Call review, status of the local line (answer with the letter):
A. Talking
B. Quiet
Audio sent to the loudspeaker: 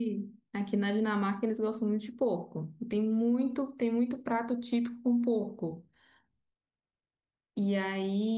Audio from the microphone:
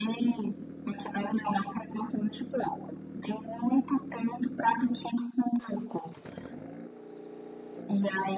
B